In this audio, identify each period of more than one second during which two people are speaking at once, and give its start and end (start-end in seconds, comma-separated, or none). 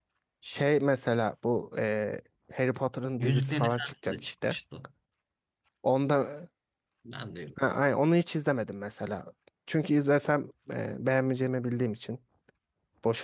3.2-4.6